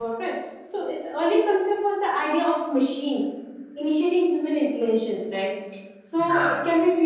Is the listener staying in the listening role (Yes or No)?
Yes